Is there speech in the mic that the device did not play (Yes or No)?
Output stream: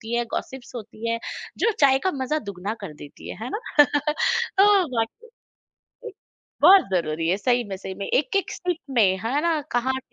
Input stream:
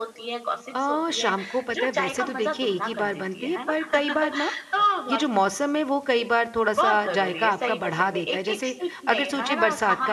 Yes